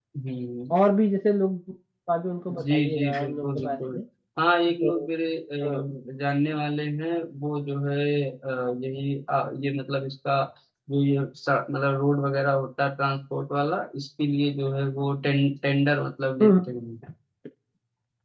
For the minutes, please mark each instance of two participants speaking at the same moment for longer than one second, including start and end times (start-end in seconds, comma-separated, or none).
2.6-4.0